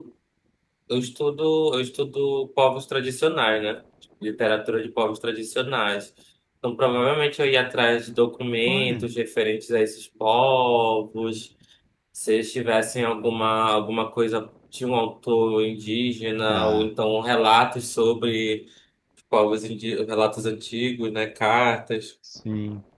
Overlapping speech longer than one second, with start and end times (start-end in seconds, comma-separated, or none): none